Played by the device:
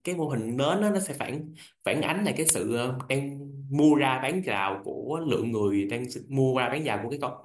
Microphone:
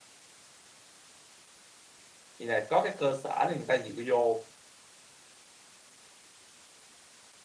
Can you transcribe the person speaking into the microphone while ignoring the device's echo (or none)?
thì là có cái cơ sở để người ta dựa vô